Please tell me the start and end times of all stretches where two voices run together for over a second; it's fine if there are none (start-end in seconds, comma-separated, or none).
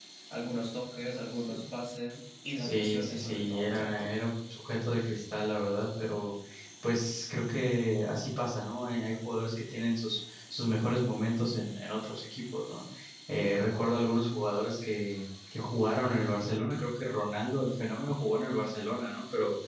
2.6-4.1